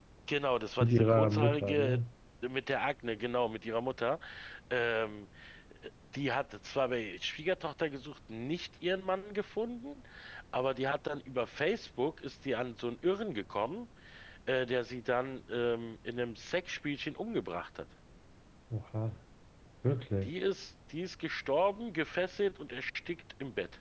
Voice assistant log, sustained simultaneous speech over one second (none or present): present